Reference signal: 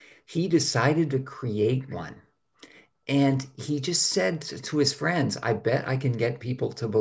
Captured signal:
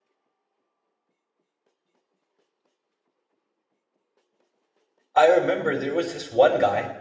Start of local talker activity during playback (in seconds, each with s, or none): 5.1 s